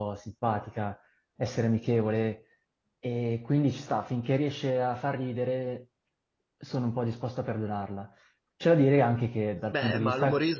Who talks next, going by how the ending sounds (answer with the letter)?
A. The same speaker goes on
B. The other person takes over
B